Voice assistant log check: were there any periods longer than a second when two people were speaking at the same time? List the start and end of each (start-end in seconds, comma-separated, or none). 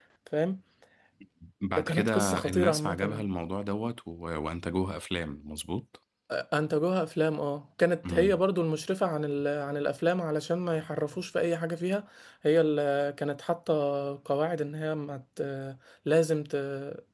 1.9-3.2